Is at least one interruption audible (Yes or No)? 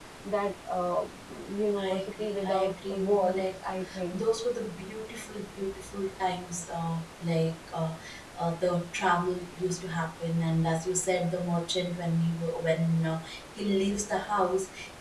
Yes